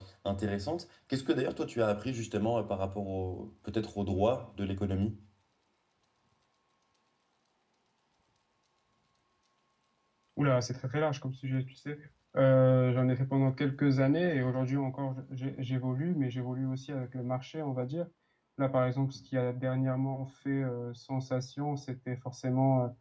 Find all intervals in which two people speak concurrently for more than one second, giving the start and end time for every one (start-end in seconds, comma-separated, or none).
none